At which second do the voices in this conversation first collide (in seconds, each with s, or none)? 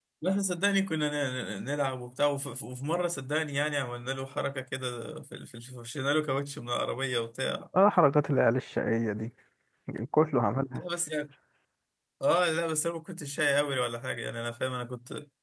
none